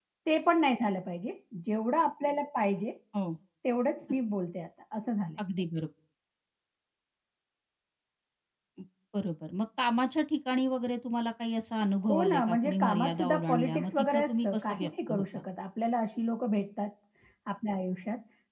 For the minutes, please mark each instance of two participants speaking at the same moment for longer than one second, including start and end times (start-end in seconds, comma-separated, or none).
12.1-15.4